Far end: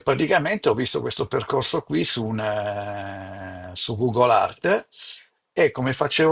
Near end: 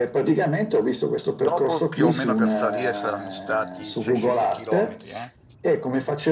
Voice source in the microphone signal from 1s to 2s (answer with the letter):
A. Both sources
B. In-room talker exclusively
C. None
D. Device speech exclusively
A